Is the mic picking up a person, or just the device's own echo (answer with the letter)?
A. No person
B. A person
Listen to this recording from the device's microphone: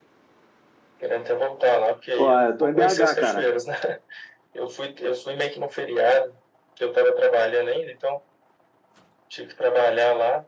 B